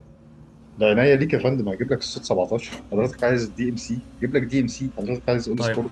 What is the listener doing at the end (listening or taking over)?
taking over